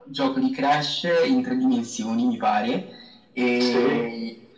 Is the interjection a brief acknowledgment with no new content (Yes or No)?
Yes